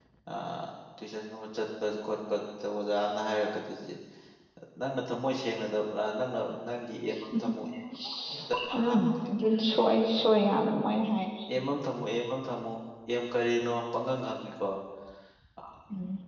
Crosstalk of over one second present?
No

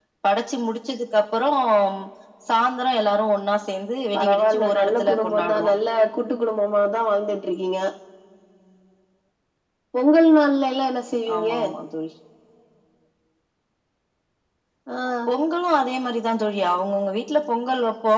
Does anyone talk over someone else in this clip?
Yes, from 4.1 s

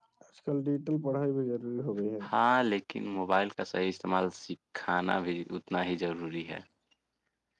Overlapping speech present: No

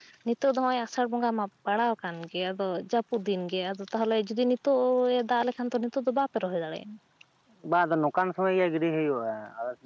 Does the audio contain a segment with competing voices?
No

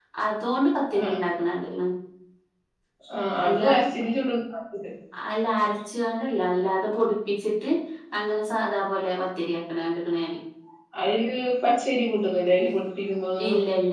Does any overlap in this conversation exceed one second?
No

